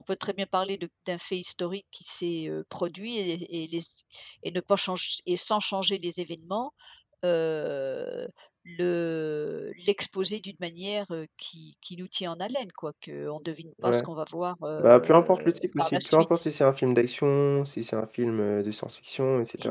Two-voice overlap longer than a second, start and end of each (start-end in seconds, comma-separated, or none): 14.8-16.3